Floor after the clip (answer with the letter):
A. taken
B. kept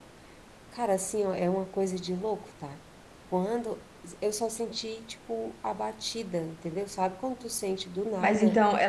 A